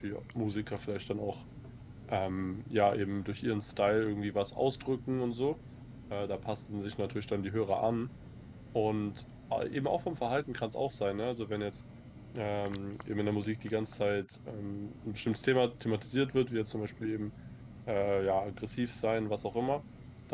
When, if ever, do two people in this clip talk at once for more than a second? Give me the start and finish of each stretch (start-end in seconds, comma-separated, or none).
none